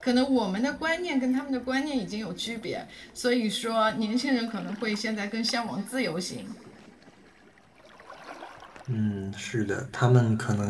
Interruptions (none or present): none